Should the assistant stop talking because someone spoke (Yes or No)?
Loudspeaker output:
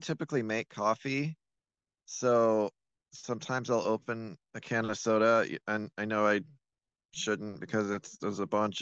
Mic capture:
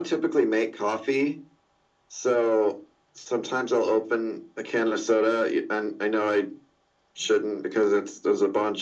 No